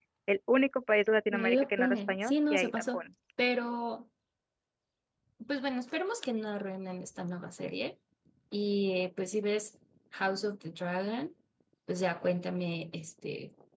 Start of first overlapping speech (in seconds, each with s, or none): 1.3 s